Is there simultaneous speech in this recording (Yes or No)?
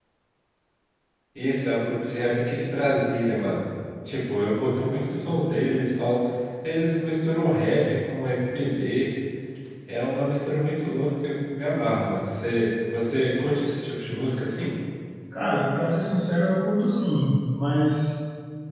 No